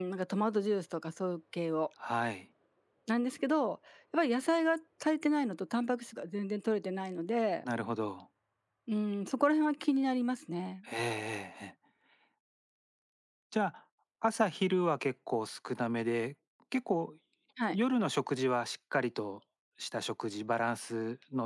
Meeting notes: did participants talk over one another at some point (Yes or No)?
No